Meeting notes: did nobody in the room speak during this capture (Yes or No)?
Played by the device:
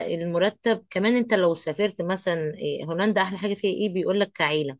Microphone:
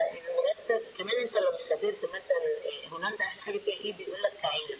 Yes